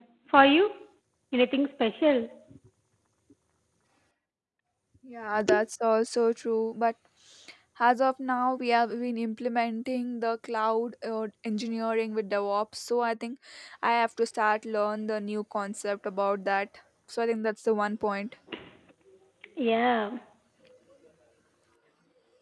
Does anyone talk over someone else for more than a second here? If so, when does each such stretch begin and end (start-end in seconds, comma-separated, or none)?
none